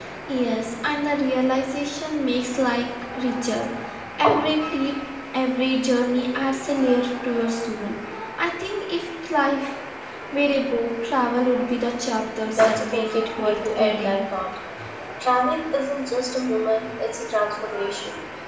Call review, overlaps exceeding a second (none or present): present